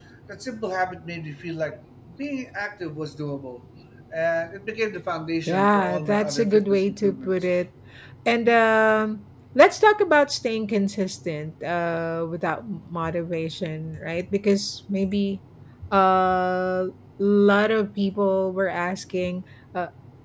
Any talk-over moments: Yes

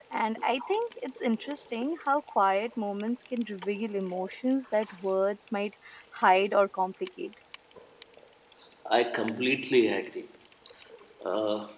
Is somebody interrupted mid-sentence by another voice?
No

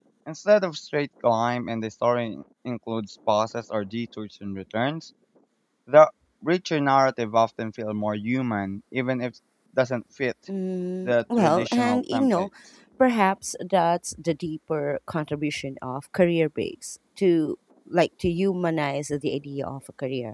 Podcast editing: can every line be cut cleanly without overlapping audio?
No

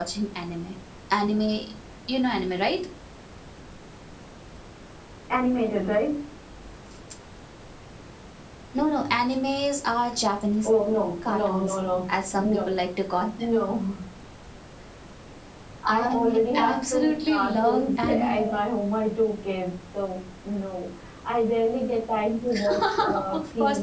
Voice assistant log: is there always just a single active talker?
No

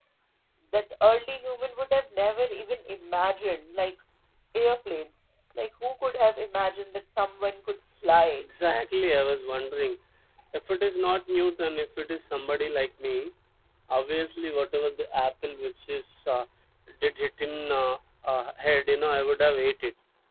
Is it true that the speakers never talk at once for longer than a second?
Yes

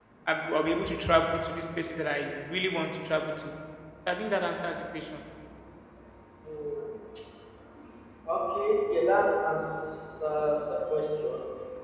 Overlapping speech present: No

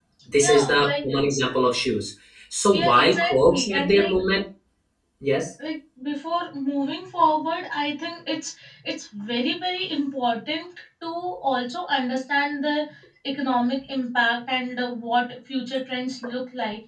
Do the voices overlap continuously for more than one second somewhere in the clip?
Yes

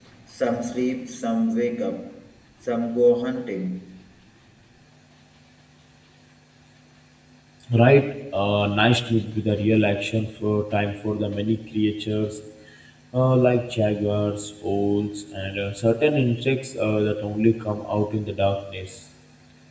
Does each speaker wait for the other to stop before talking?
Yes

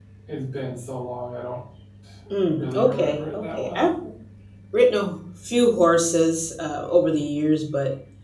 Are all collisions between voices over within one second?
No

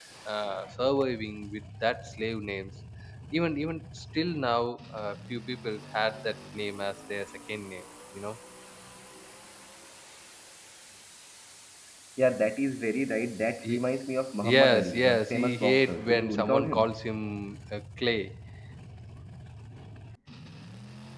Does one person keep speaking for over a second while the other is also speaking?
Yes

